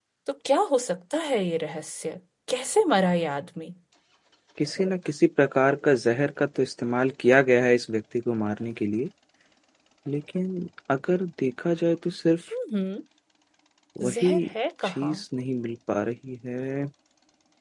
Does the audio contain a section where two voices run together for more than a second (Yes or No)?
No